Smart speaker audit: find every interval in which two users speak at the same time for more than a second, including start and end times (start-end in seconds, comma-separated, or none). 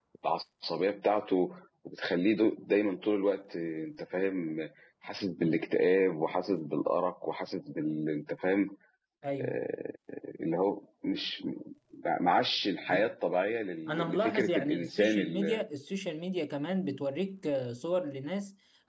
13.9-15.6